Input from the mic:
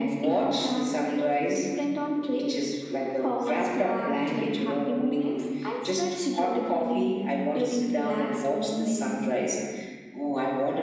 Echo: present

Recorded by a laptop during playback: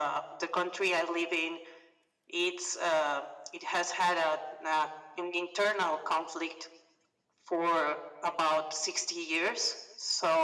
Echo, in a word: present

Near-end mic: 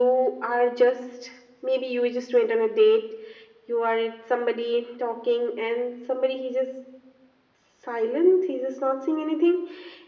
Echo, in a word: present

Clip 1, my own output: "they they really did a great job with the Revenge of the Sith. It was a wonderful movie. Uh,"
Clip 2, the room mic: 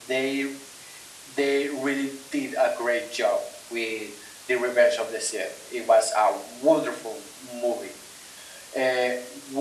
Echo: present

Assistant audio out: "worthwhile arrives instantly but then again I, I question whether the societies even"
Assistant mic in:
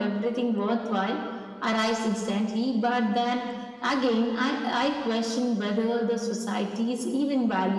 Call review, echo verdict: present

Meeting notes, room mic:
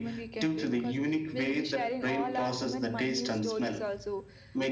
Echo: present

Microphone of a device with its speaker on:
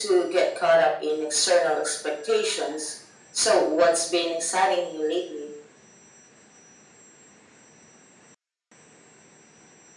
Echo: present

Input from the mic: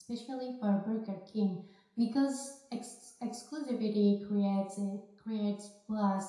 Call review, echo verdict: none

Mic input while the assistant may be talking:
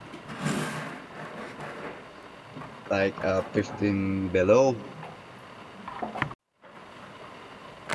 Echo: none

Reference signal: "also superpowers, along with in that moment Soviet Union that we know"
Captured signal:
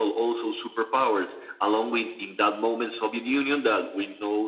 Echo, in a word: present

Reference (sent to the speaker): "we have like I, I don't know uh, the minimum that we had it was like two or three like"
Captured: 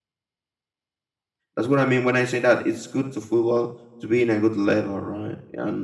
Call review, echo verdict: none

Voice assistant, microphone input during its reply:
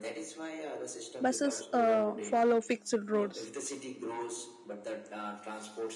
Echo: present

